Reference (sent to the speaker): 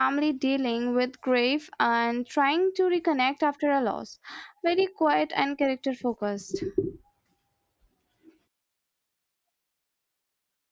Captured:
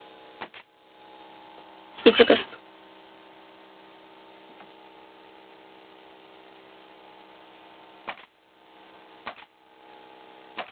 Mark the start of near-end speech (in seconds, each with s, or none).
2.0 s